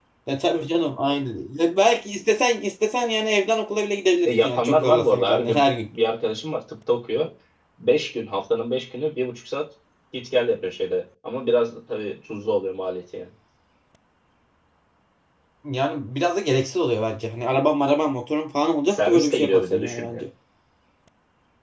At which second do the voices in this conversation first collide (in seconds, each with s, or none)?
4.2 s